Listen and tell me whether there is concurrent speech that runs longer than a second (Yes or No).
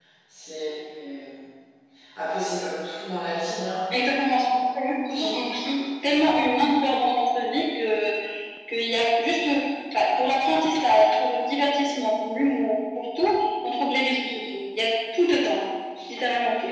No